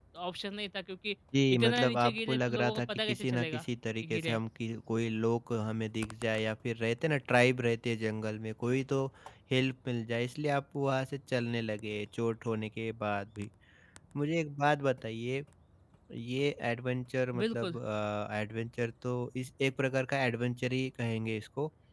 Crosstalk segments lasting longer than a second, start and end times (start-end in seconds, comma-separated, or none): 1.5-3.6